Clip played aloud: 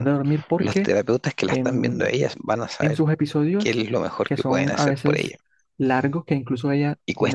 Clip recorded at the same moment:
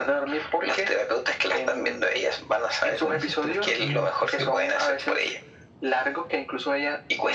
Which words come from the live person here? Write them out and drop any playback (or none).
Con esos trastornos en especial,